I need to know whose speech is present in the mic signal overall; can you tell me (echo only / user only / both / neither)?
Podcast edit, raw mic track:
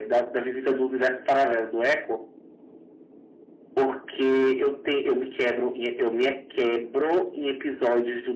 echo only